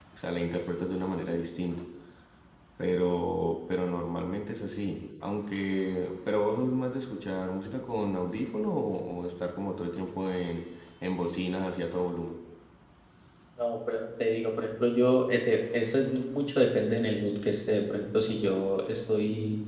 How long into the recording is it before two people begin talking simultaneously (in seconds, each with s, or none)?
none